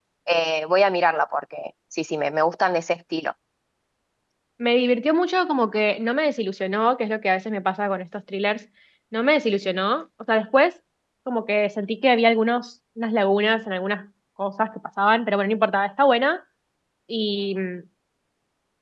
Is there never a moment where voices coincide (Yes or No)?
Yes